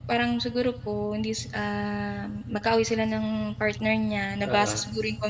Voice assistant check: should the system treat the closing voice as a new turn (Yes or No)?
No